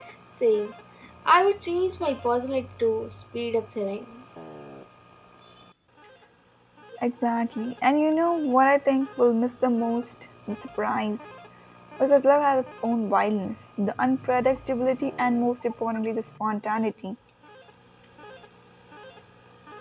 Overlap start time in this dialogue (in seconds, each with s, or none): none